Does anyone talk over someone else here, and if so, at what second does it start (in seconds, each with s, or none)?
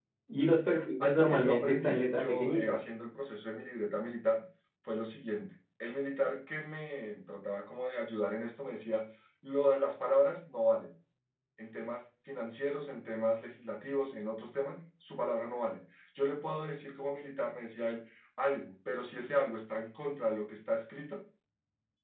1.0 s